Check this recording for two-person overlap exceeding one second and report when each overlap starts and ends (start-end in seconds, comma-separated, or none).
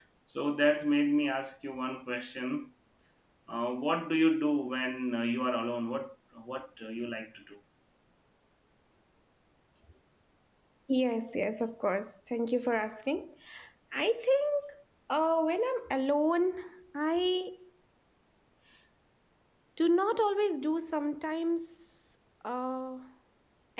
none